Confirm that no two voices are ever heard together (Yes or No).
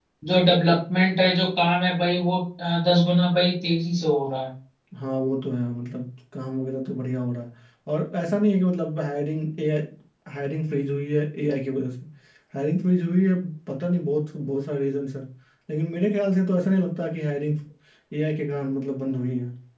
Yes